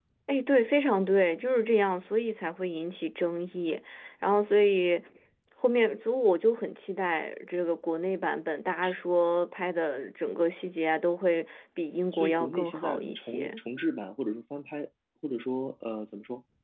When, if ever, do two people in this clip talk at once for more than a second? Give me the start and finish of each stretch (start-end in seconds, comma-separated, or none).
12.1-13.6